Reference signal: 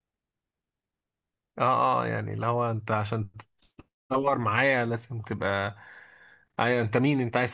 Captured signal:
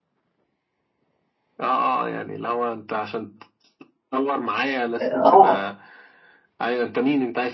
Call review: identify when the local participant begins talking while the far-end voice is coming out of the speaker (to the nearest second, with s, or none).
5 s